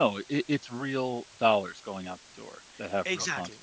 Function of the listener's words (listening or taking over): taking over